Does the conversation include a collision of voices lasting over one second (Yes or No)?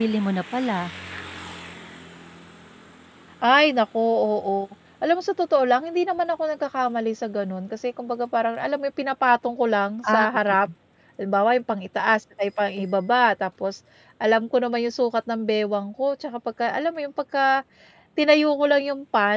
No